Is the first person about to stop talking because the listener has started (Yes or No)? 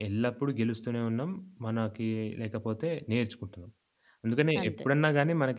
No